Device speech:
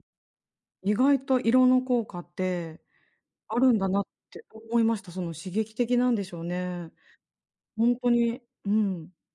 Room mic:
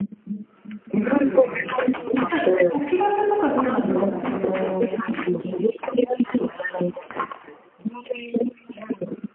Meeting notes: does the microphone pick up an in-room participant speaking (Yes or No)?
Yes